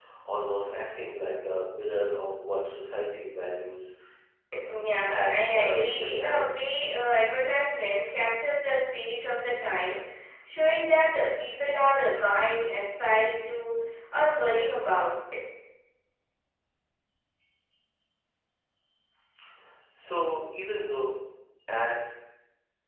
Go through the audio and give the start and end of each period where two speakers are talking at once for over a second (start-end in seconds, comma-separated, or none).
5.1-6.5